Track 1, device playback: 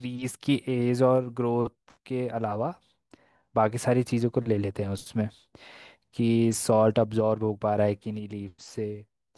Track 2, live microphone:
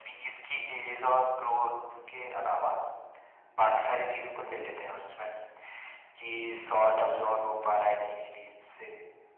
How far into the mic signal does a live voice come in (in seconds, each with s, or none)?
6.5 s